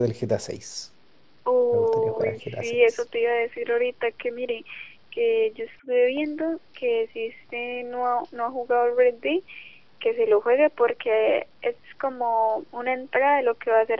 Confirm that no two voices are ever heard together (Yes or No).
No